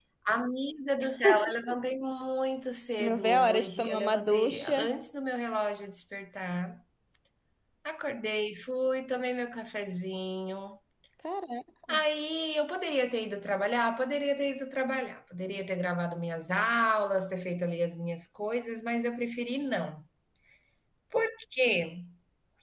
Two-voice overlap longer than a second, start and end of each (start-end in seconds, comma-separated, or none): 3.0-4.8